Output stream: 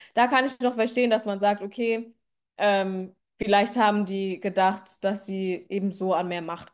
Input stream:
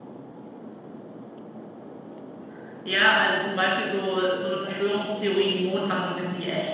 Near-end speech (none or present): present